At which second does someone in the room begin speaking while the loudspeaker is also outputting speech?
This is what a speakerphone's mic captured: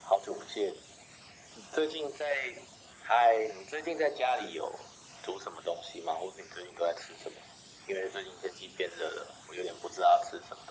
none

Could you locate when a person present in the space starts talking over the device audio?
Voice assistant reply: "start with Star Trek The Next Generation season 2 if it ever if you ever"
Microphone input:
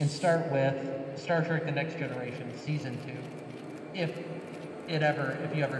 none

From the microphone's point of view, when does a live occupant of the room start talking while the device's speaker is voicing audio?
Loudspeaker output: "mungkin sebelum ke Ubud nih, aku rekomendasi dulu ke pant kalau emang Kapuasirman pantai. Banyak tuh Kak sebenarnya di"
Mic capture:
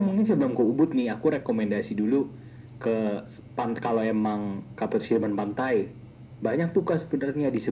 none

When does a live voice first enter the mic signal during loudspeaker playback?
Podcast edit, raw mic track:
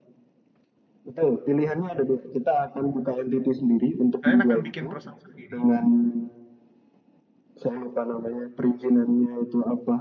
4 s

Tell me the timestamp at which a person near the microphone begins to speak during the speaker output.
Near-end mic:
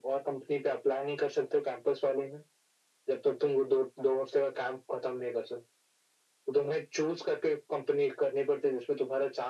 none

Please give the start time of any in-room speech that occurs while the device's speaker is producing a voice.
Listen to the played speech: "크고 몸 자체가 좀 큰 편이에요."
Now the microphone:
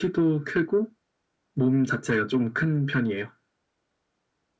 none

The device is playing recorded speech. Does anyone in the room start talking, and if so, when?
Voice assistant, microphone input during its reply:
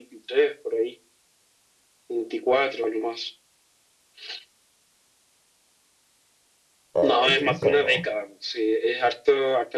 7 s

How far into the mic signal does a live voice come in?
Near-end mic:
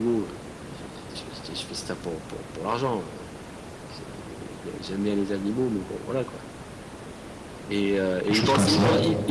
8 s

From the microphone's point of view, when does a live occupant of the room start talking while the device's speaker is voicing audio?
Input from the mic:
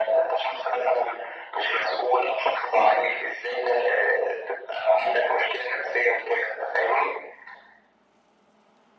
none

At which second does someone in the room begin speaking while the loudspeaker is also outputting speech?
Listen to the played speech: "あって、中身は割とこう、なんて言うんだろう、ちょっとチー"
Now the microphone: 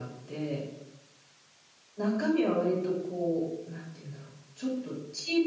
none

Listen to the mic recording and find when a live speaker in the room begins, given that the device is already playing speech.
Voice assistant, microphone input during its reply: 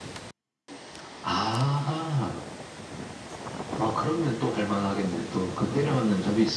none

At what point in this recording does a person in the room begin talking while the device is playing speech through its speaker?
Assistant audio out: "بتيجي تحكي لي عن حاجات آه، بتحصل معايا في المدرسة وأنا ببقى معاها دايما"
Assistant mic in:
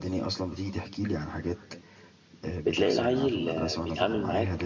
3 s

